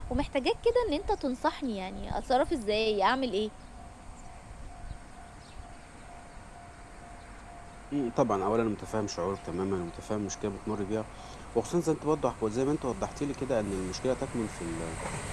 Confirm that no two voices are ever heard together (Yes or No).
Yes